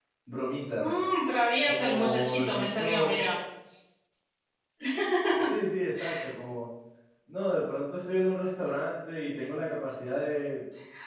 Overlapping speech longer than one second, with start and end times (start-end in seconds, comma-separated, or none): 1.7-3.2